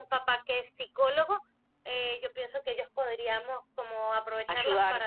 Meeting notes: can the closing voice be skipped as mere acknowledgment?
Yes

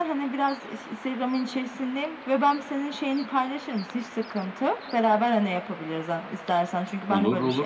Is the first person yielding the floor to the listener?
No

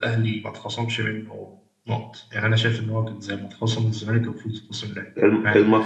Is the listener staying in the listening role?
No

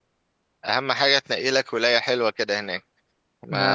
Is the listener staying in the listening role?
Yes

